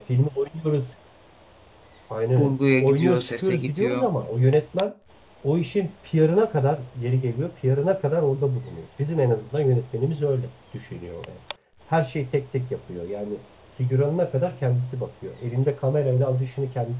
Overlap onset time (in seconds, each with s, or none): 2.4 s